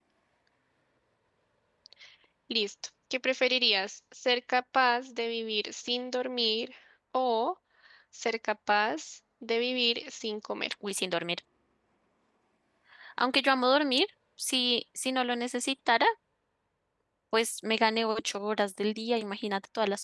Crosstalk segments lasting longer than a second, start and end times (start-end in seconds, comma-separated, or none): none